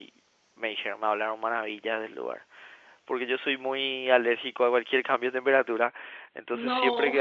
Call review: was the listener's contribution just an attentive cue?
Yes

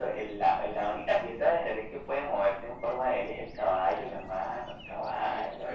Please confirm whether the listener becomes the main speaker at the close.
Yes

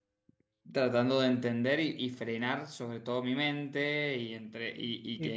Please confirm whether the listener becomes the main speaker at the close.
No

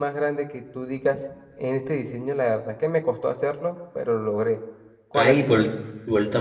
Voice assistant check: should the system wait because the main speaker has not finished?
No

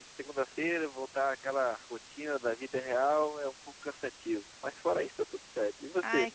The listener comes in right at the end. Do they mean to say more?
Yes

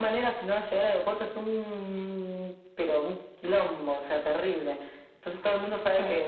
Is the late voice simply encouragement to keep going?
Yes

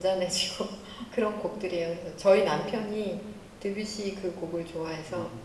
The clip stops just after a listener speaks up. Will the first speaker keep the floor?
No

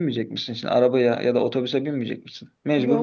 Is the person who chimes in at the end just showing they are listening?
No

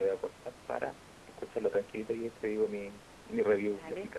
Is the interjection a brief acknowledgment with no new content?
No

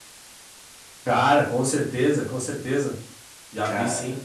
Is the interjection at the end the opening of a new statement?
No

